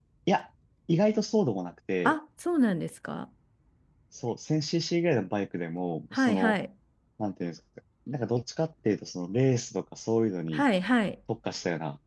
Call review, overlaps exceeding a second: none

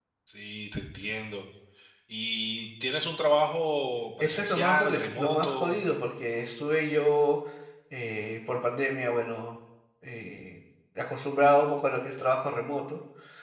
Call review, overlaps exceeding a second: present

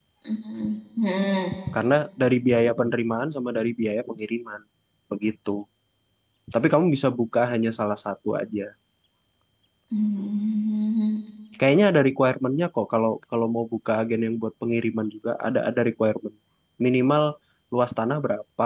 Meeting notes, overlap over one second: none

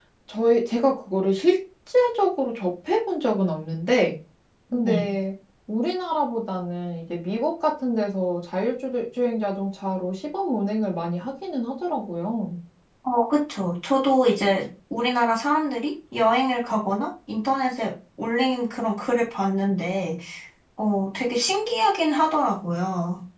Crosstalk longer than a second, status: none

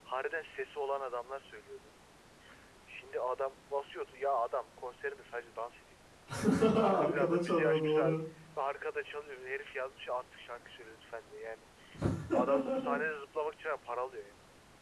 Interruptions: present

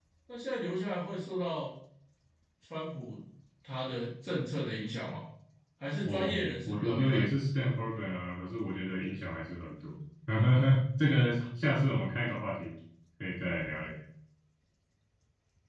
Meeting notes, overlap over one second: present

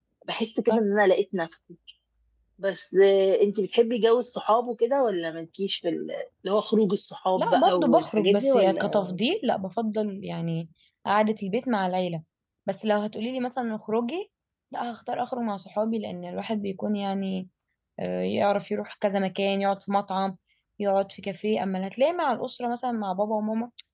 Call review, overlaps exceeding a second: present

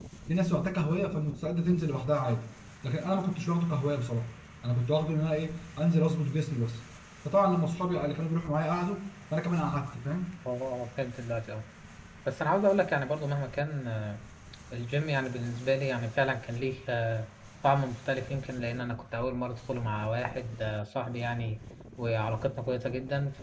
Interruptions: none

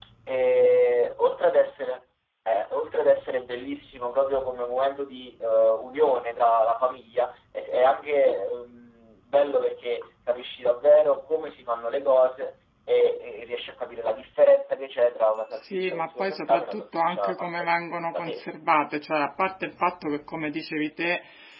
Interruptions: present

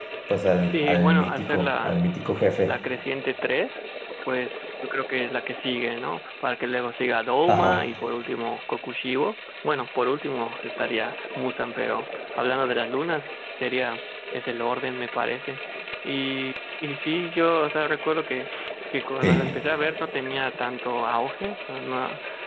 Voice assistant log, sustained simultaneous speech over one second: present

